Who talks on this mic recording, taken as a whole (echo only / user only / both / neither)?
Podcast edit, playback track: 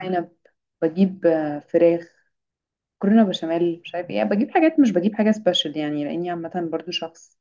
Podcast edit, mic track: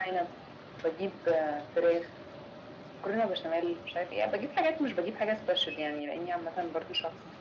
echo only